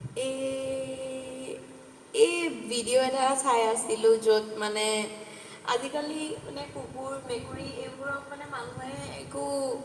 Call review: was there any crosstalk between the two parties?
No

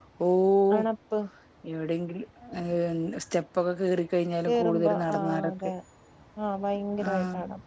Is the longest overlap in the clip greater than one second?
Yes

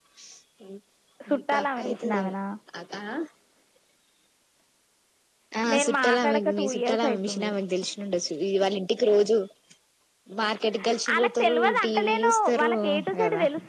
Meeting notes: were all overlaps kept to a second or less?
No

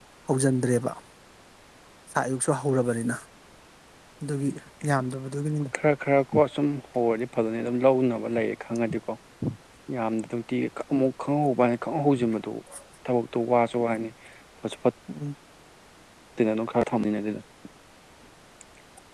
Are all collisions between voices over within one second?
Yes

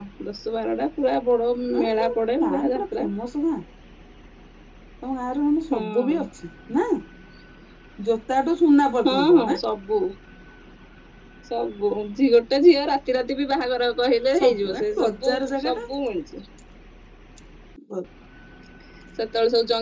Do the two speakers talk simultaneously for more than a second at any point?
Yes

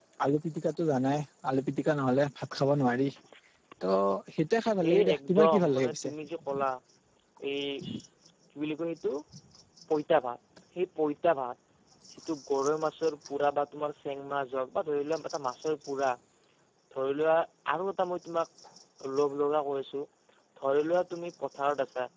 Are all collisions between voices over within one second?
No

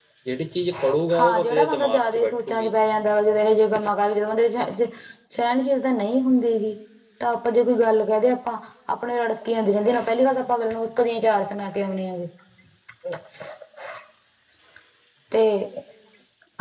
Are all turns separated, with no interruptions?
No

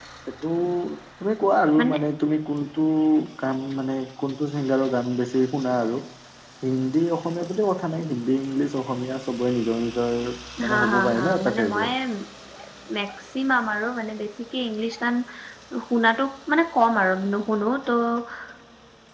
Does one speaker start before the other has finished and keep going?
Yes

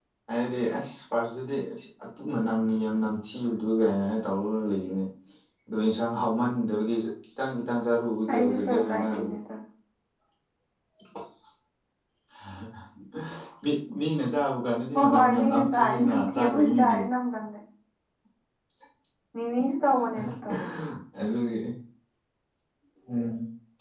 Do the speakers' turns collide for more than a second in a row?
Yes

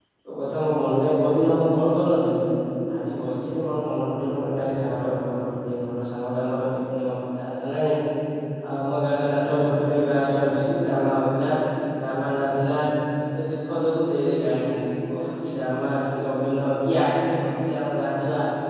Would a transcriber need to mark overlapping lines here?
No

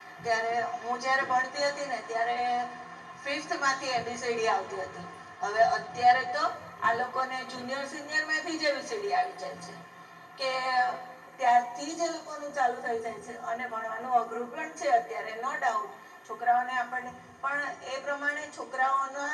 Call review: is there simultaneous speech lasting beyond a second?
No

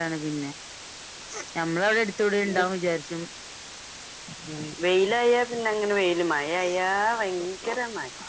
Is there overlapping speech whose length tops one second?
No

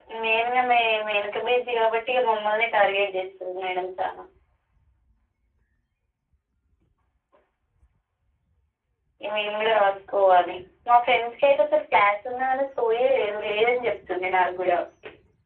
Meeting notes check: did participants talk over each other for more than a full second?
No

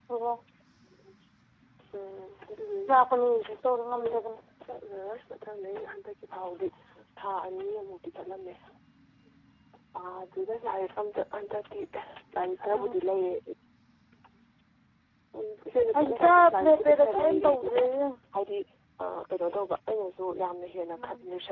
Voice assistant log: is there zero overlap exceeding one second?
No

